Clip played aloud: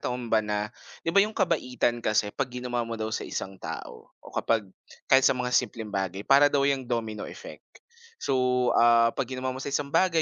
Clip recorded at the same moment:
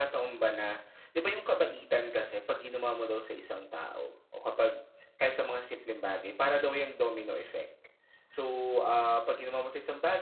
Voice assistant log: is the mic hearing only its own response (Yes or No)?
Yes